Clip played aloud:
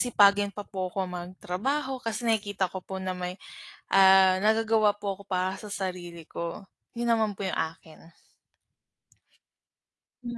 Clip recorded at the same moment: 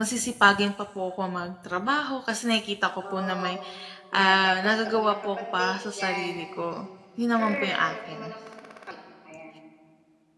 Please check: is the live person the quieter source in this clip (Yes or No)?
Yes